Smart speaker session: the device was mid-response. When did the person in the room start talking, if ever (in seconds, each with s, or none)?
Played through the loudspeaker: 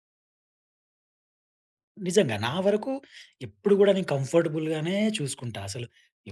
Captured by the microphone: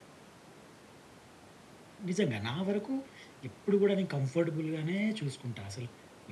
none